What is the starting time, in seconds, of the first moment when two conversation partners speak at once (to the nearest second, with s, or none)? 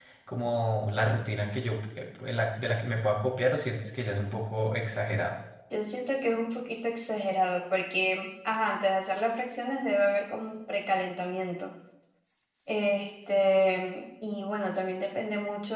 none